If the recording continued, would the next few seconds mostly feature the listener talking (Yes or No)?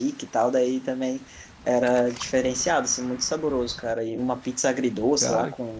No